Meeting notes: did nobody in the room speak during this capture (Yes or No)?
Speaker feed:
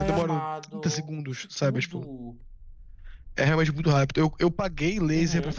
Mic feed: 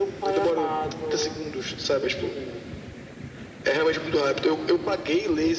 Yes